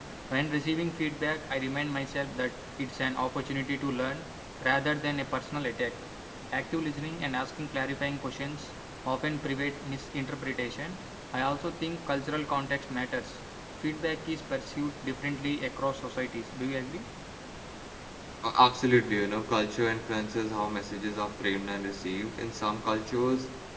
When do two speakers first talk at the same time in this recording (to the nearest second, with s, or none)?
none